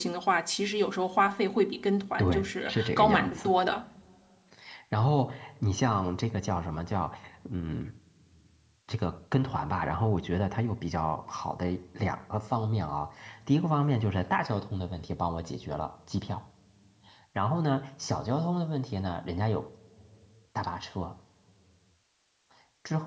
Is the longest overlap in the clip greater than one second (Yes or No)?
Yes